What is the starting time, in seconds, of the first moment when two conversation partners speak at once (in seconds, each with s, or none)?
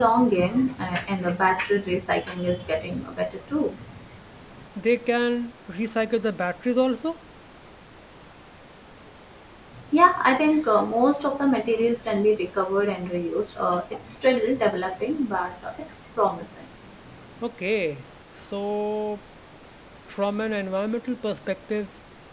none